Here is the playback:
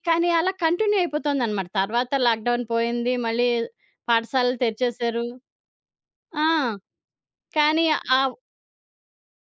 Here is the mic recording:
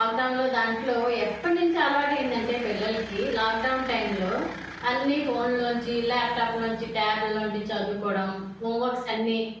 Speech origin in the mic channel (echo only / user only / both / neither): user only